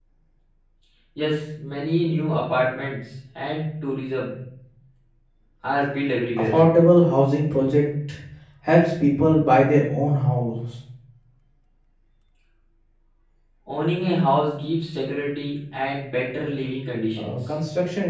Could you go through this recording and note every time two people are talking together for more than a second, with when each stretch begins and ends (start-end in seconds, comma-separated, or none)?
none